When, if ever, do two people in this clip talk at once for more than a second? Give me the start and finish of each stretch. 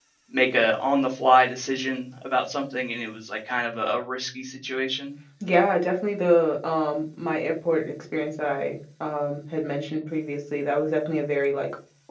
none

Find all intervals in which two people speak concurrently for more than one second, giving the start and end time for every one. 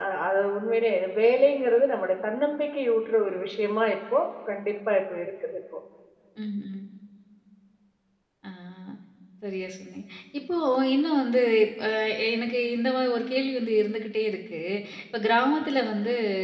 none

